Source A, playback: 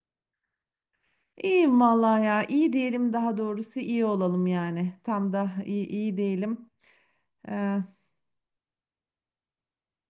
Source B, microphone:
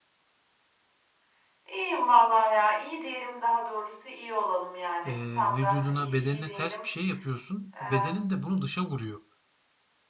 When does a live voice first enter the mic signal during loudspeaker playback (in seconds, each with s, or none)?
5.1 s